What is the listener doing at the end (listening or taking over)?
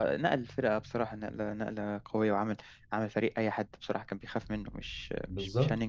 taking over